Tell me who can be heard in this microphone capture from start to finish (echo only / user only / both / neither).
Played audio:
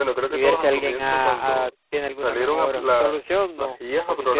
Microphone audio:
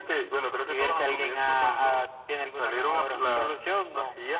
echo only